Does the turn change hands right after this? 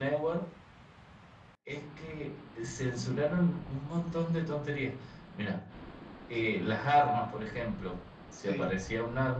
No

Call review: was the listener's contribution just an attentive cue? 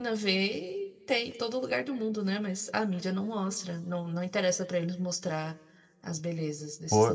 No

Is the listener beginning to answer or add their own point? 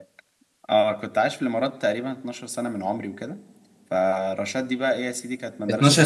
Yes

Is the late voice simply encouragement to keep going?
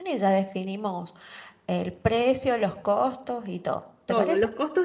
No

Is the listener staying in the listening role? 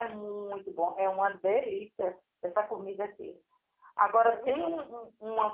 Yes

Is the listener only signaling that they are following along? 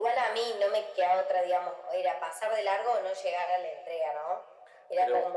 Yes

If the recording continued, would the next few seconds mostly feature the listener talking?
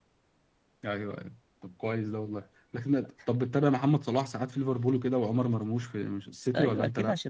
Yes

